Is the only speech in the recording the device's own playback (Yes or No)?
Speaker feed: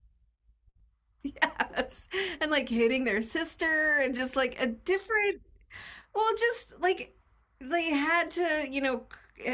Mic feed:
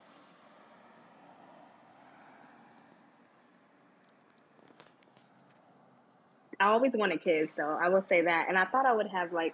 No